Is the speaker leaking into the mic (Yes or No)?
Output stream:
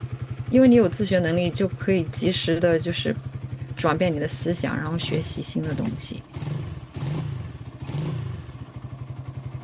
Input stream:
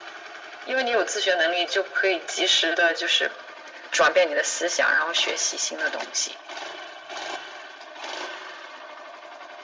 Yes